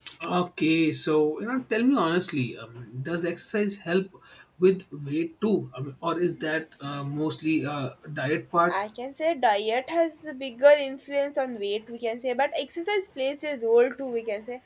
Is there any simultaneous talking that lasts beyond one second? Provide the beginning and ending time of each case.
none

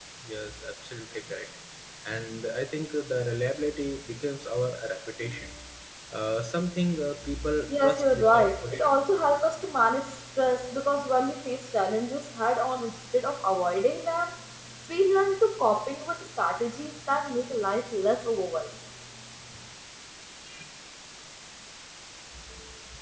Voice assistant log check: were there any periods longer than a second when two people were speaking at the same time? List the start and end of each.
7.7-8.9

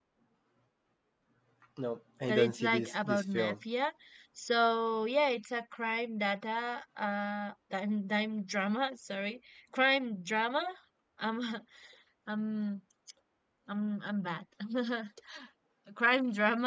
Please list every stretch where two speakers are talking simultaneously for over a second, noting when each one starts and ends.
2.3-3.5

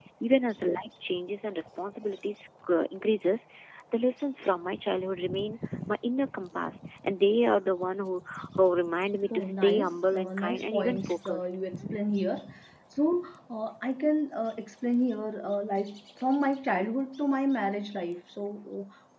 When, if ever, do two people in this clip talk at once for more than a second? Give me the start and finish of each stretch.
9.3-11.5

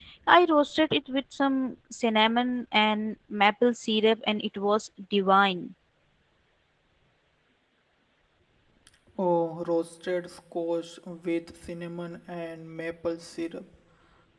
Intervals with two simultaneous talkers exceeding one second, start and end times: none

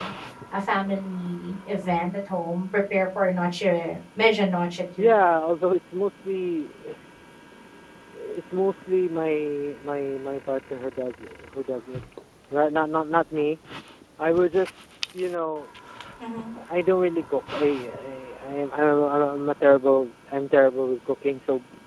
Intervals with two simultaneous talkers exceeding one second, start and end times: none

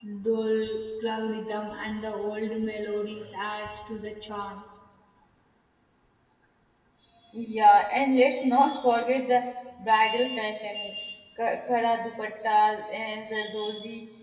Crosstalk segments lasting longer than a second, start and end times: none

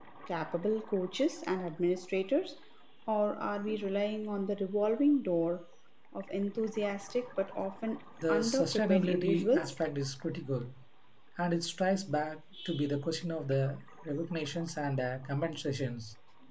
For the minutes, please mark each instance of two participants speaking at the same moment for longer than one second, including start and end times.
8.3-9.7

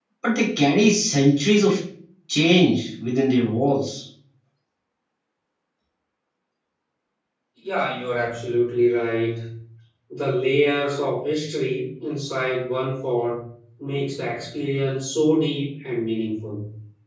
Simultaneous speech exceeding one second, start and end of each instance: none

